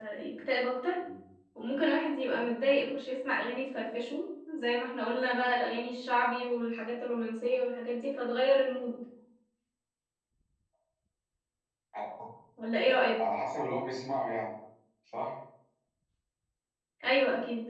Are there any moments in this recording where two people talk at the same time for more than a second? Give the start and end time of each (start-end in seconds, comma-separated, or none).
none